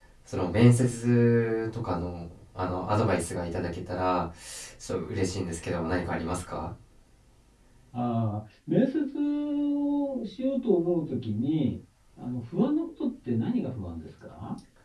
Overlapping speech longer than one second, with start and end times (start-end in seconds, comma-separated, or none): none